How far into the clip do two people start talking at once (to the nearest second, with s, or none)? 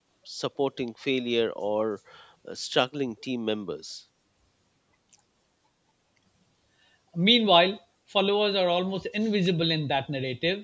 none